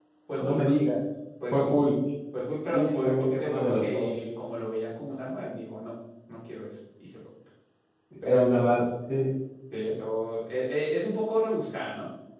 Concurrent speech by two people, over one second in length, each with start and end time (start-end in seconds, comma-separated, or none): 2.7-4.1